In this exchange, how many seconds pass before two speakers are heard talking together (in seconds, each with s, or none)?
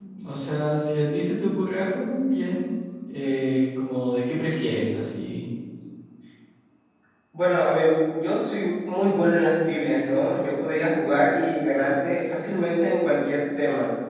none